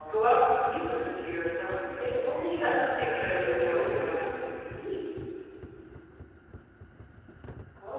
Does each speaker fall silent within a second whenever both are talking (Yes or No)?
No